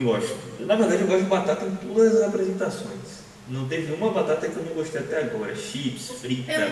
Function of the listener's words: taking over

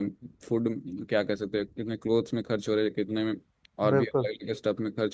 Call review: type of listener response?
listening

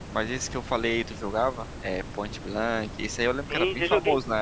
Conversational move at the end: taking over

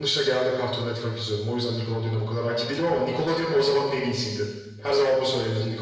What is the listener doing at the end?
taking over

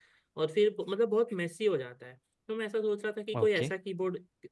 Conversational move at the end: listening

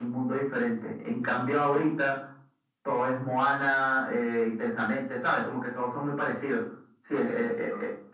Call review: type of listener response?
listening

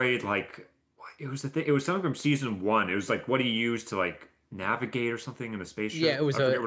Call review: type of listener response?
taking over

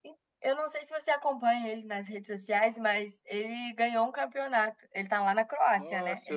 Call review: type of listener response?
taking over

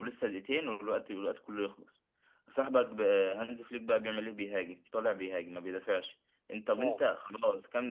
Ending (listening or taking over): listening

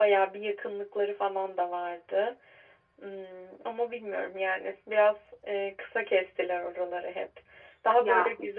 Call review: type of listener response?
listening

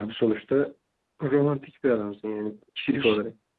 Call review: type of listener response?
taking over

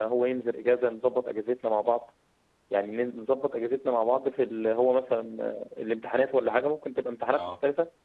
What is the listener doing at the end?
listening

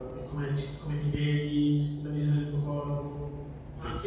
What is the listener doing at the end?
listening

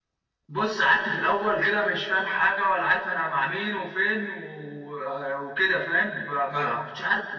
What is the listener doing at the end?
listening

